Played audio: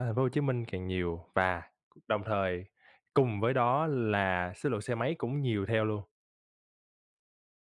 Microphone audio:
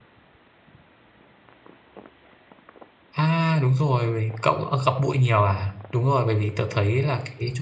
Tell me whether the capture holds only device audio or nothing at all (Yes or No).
No